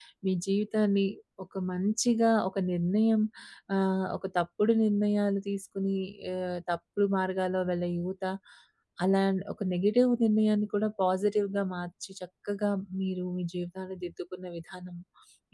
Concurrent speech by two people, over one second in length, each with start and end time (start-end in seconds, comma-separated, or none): none